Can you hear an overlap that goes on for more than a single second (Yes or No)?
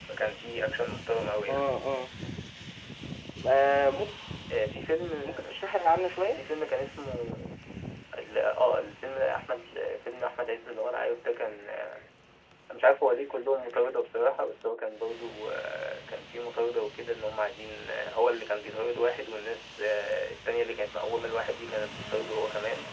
No